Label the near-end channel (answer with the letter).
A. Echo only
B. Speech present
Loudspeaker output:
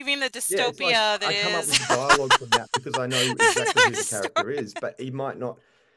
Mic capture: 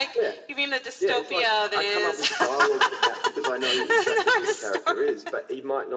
A